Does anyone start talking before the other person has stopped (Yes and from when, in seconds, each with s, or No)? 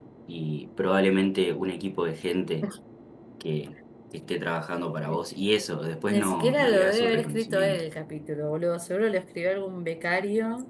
Yes, from 6.1 s